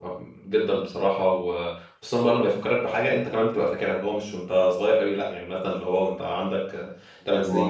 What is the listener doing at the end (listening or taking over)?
listening